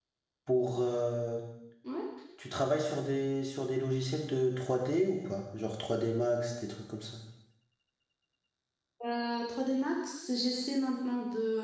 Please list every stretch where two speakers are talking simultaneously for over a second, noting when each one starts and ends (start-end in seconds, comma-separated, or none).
none